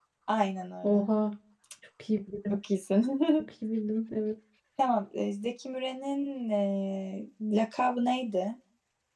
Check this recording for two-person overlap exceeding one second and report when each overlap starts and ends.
none

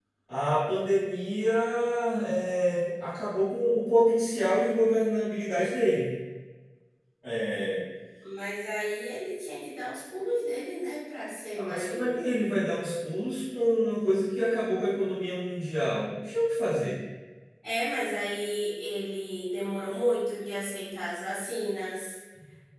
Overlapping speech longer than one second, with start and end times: none

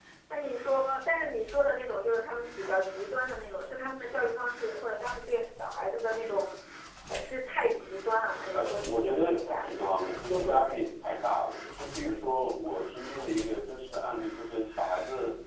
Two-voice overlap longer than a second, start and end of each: 8.5-9.8

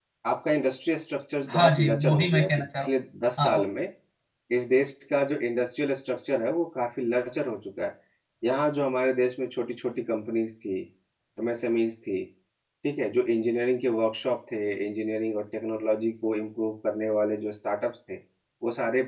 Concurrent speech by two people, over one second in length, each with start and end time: 1.5-2.9

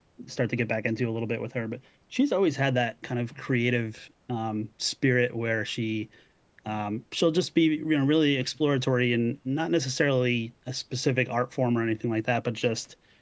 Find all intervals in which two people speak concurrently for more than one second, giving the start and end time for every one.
none

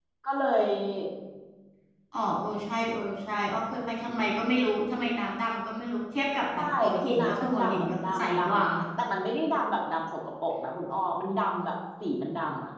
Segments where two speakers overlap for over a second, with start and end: 6.5-8.6

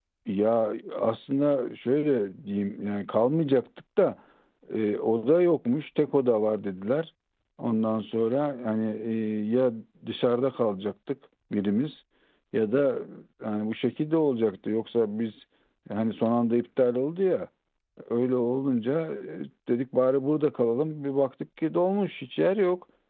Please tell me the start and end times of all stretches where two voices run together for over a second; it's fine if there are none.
none

